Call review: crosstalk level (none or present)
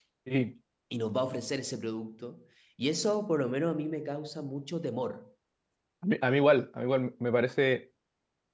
none